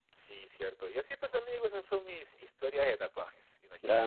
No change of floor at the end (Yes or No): No